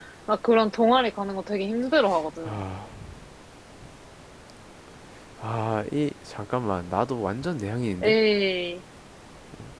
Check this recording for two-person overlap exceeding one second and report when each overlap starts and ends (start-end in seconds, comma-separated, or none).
none